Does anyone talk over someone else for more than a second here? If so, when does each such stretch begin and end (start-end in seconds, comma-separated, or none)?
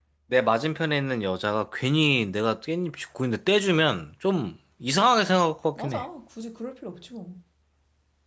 none